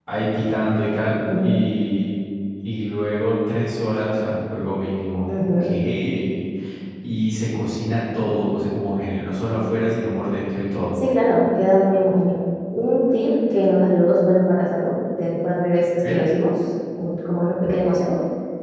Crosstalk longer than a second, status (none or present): none